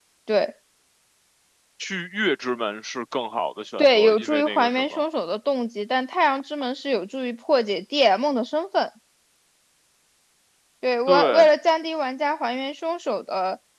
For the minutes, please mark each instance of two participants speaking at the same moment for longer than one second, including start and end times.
3.8-5.0

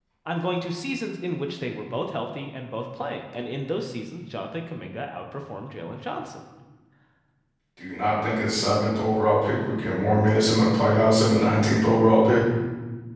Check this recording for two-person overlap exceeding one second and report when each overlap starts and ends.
none

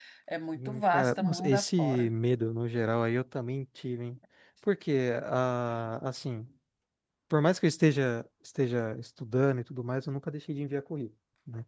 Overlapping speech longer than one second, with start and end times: 0.6-2.1

